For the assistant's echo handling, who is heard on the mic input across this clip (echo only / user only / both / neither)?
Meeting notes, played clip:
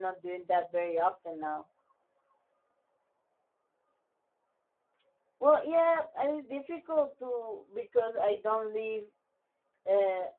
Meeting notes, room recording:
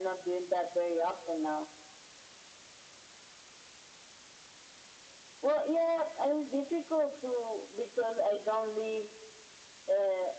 echo only